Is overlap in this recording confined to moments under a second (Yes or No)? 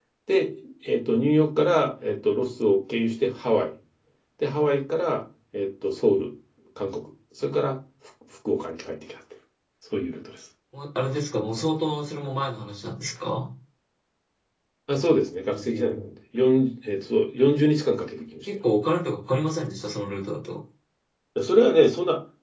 Yes